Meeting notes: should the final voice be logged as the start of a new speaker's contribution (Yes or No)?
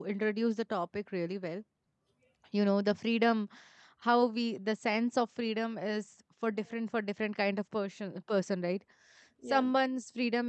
No